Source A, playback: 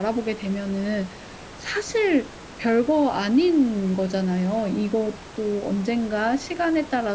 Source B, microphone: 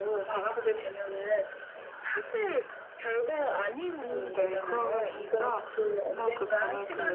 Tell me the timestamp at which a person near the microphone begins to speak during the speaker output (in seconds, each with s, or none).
4.0 s